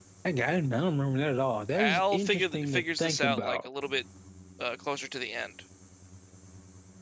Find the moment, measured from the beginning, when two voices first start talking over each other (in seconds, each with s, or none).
1.7 s